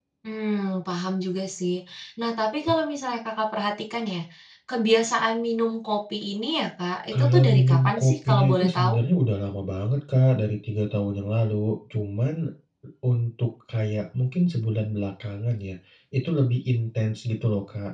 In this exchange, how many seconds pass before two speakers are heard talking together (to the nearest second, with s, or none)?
7 s